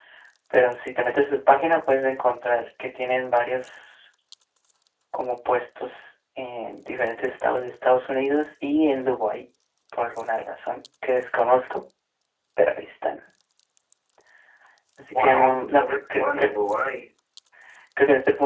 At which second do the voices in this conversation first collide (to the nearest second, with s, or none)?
15 s